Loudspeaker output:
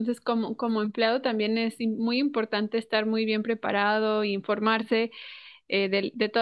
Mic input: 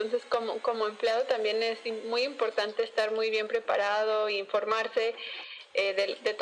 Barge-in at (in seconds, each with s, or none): none